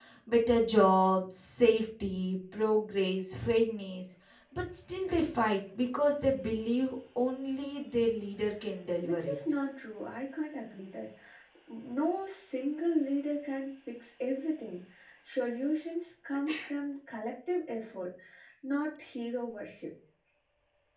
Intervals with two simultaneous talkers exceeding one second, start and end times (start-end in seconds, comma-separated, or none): none